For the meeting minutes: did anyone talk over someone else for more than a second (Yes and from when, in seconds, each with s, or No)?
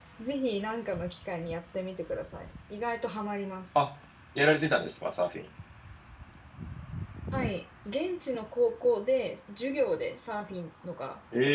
No